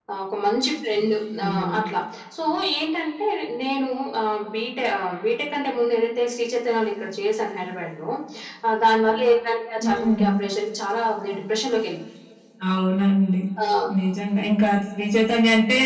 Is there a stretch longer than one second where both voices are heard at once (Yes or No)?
No